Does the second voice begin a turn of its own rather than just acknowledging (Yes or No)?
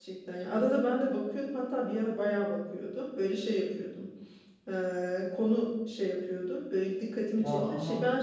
No